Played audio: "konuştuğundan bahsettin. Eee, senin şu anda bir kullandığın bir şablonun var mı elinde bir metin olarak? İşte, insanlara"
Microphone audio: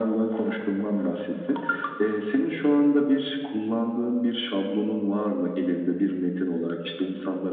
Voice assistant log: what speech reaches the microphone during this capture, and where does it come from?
echo only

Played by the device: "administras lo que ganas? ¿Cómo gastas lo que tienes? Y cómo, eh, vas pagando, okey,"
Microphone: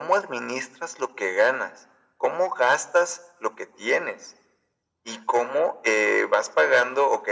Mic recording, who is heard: echo only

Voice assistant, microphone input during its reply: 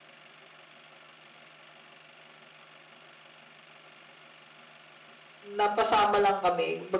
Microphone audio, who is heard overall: user only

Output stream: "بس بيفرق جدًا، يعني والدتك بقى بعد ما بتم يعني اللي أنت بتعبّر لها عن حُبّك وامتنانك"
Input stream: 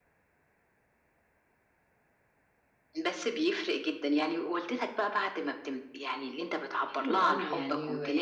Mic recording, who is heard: both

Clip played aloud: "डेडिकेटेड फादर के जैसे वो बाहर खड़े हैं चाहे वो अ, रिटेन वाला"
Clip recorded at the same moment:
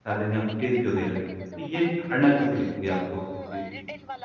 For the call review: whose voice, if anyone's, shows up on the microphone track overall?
both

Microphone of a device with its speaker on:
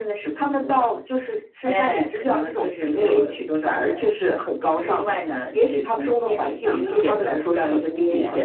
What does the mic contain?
both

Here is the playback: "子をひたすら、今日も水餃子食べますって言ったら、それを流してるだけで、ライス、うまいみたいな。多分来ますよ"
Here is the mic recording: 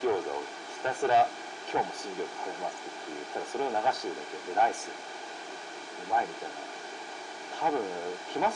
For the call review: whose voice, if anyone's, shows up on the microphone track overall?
echo only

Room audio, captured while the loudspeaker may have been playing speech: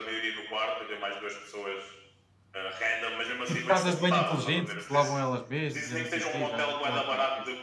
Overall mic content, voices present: both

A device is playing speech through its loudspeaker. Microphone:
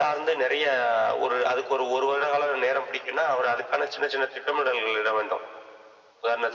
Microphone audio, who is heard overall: echo only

